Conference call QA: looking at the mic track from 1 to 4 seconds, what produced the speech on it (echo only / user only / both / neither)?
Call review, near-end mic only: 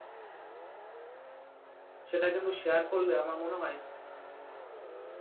user only